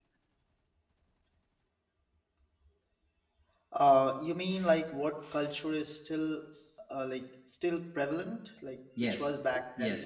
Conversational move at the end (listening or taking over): taking over